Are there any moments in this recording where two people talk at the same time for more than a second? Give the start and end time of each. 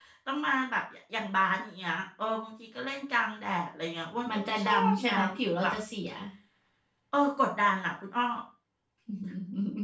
4.3-5.7

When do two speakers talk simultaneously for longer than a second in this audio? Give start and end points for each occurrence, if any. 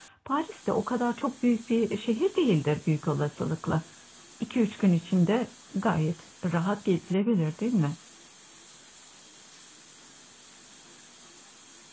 none

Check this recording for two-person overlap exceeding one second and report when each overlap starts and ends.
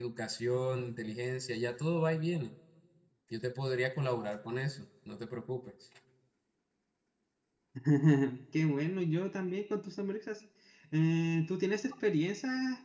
none

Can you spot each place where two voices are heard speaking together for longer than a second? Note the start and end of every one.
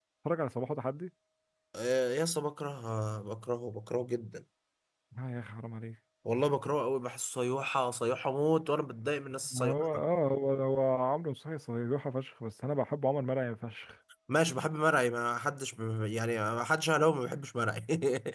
none

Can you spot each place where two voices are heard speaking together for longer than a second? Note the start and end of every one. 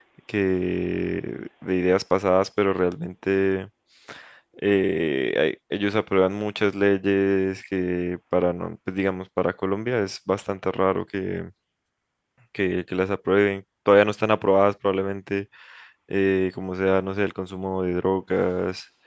none

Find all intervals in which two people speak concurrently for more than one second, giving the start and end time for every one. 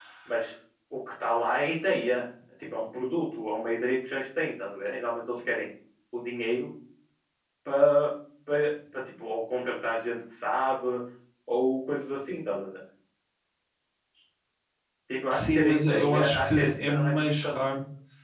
15.3-17.6

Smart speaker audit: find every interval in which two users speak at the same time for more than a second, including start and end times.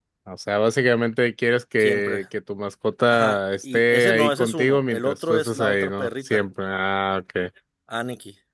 3.1-6.4

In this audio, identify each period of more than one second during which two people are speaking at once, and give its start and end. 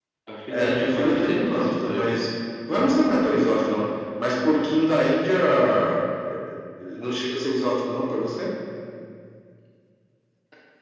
0.5-2.1

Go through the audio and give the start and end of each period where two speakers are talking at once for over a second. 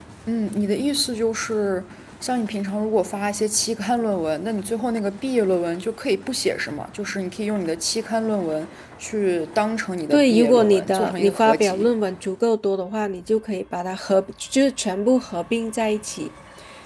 10.1-11.9

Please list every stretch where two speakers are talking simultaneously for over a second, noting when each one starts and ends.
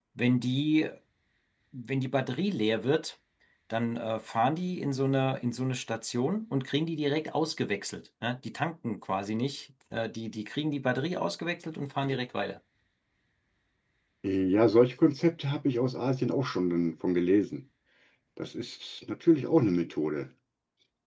none

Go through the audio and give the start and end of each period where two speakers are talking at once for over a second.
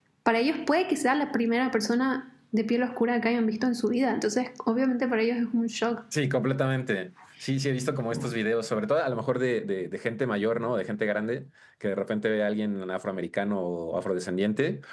none

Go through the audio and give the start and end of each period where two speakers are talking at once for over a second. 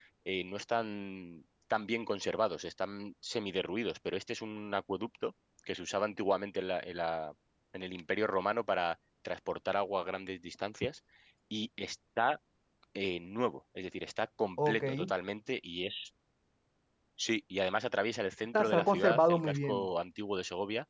18.5-19.9

